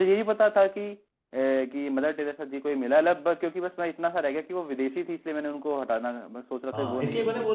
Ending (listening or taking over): taking over